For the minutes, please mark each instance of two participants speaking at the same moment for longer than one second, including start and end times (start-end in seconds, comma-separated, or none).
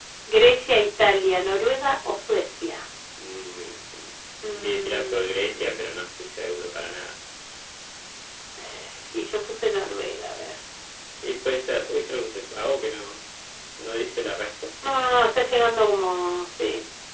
4.5-5.9